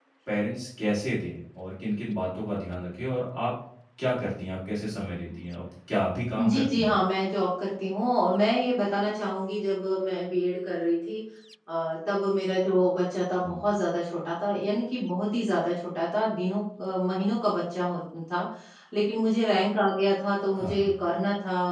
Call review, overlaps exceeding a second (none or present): none